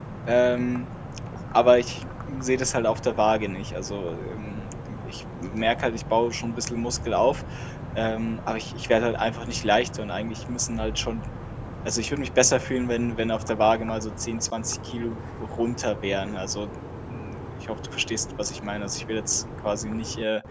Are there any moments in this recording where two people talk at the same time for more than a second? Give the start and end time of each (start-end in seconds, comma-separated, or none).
none